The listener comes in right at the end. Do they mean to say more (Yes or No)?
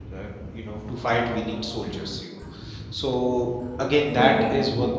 No